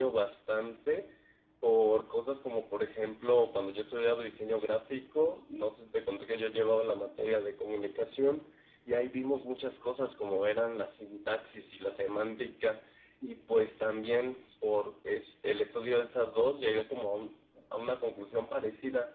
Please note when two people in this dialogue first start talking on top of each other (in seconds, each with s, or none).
none